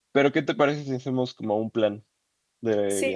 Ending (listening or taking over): taking over